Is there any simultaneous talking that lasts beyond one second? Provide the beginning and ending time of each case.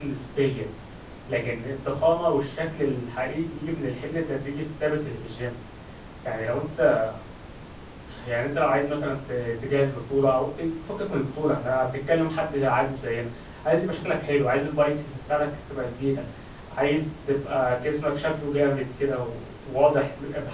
none

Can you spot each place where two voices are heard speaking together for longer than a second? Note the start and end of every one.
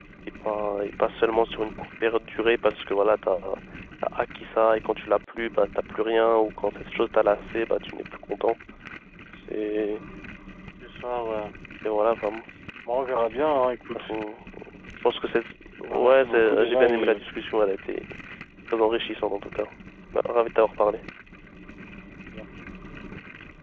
15.9-17.2

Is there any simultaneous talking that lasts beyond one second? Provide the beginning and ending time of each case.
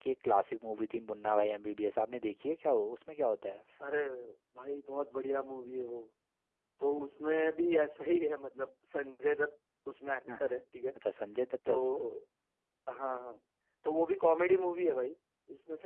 none

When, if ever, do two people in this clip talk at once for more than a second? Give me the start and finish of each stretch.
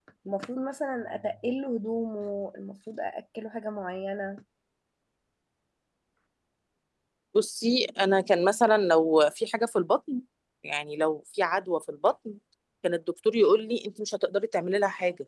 none

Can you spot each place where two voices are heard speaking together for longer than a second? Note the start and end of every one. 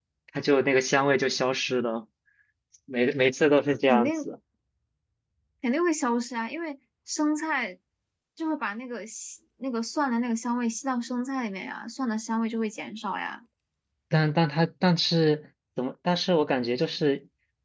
none

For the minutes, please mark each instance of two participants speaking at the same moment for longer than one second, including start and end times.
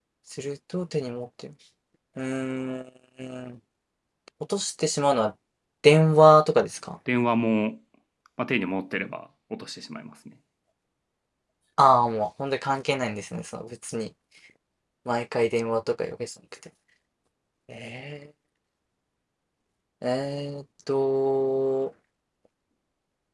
none

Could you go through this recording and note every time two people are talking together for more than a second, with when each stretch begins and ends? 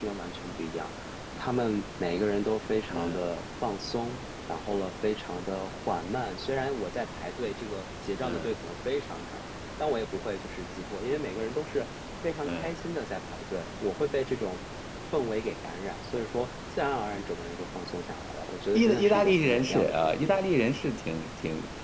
18.7-20.4

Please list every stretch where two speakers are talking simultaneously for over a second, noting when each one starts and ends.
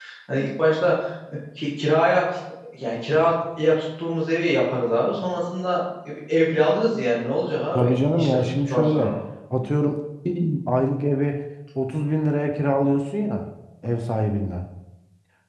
7.7-9.1

